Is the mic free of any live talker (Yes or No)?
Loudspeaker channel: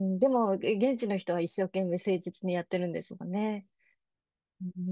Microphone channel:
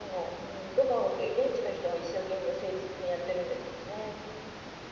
Yes